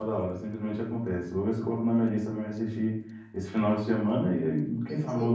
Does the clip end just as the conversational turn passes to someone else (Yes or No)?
Yes